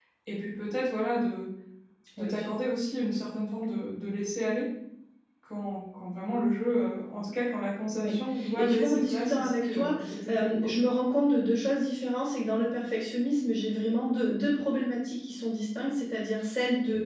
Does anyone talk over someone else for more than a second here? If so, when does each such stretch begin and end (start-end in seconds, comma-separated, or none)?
8.6-10.7